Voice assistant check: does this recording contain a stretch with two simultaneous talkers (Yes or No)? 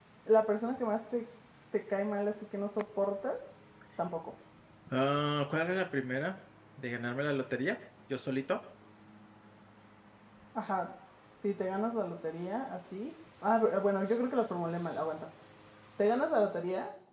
No